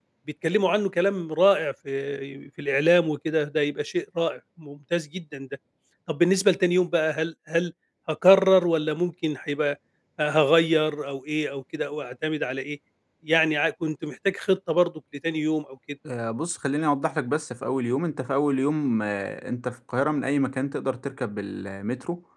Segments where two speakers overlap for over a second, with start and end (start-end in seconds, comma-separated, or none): none